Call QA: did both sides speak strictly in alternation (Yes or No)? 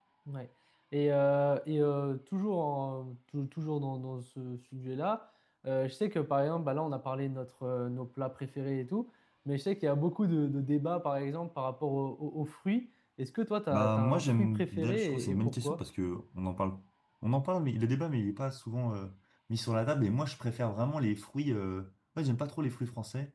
No